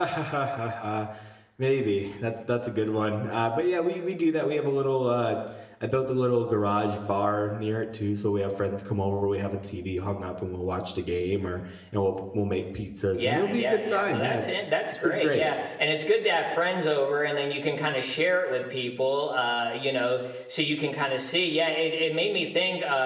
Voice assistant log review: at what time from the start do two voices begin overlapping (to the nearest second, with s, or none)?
13 s